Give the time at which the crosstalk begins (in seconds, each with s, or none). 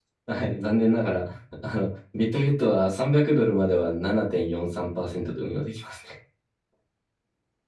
none